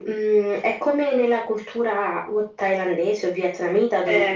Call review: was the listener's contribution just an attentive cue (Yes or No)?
Yes